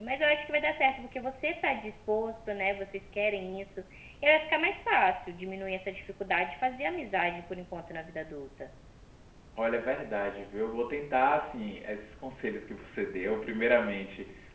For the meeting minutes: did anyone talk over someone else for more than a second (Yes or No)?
No